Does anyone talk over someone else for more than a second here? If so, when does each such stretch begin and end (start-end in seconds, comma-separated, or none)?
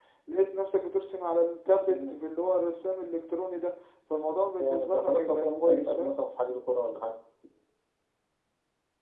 4.6-6.2